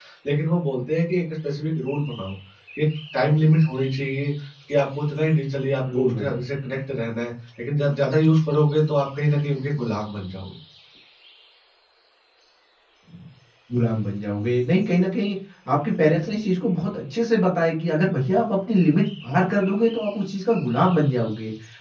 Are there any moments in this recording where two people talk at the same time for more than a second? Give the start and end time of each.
none

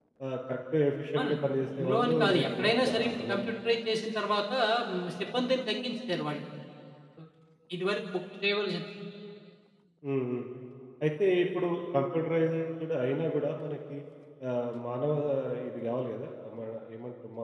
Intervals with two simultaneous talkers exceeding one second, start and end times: 1.8-3.4

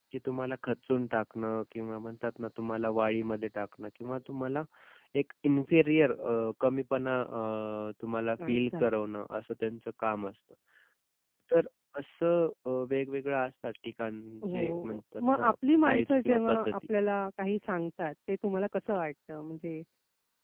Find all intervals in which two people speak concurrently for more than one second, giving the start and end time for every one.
14.4-16.8

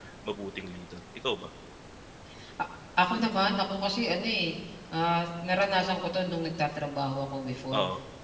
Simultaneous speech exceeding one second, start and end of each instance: none

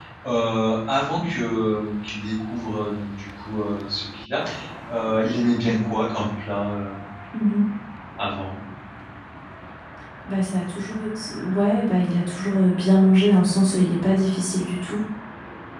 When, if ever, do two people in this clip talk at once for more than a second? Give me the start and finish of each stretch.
none

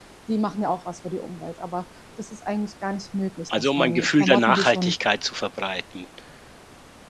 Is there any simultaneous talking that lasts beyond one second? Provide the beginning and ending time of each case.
3.6-5.0

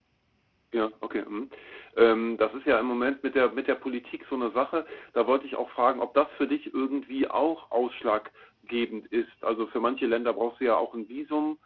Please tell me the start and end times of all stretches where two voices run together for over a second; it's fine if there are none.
none

